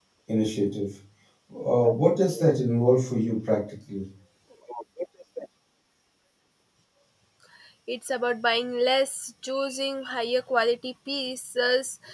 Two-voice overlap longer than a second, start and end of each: none

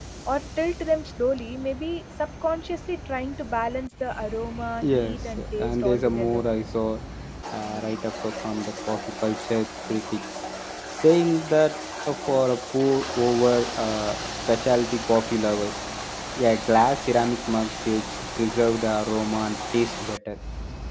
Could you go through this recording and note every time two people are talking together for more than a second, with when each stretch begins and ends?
4.9-6.4

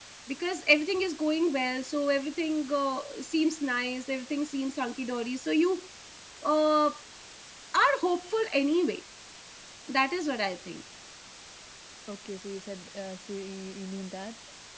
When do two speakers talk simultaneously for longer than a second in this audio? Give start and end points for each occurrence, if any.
none

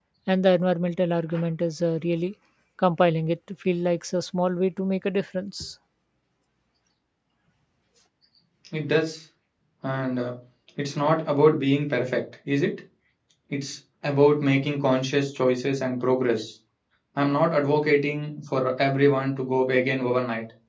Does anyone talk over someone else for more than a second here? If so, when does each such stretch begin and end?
none

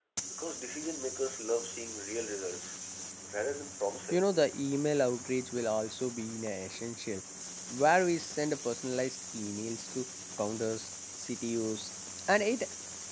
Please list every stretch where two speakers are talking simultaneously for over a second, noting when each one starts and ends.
none

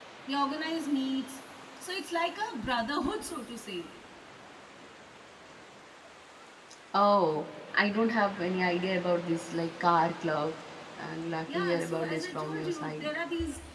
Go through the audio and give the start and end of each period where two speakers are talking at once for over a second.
11.5-13.2

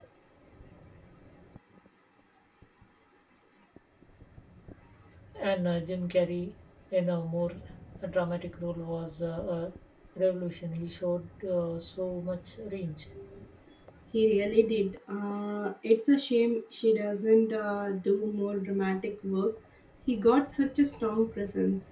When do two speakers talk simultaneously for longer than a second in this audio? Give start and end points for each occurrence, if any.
none

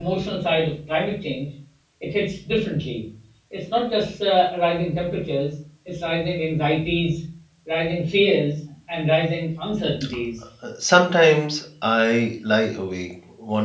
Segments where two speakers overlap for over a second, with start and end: none

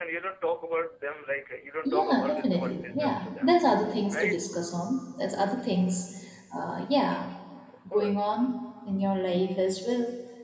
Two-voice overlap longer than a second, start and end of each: 1.9-3.5

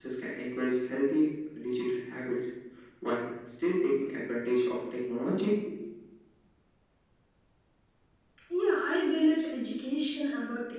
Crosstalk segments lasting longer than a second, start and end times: none

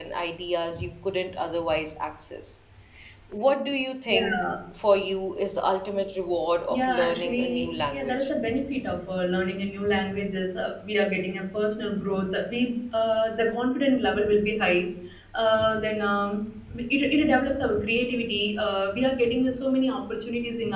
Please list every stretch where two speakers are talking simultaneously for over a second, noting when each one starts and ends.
6.7-8.3

